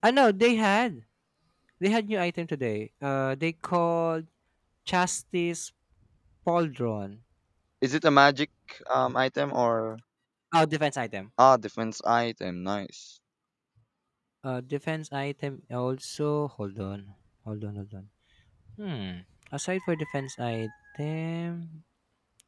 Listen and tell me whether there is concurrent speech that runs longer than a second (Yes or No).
No